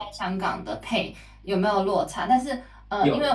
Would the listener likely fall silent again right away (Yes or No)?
Yes